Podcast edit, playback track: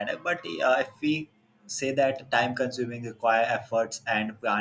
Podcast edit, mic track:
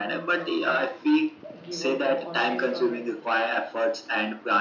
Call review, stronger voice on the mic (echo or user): echo